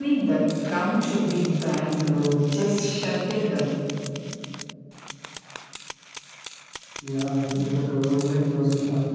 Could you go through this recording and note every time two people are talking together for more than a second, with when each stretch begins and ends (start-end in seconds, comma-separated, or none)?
none